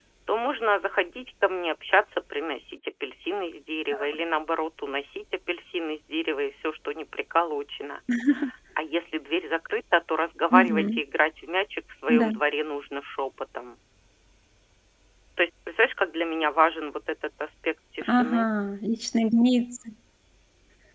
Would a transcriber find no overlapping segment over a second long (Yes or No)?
Yes